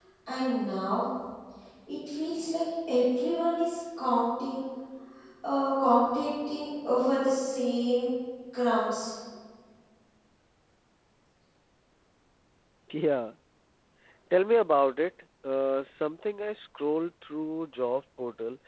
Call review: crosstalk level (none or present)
none